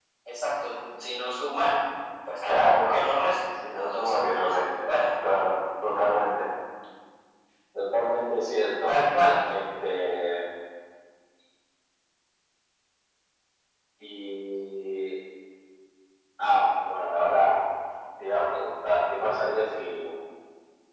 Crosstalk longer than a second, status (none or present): present